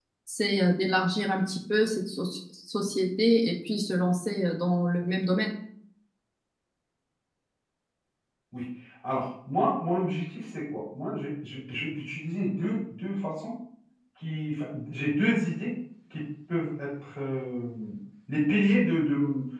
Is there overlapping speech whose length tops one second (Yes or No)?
No